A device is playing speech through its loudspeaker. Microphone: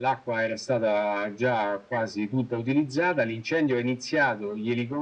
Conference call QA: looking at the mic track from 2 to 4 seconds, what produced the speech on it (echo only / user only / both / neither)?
echo only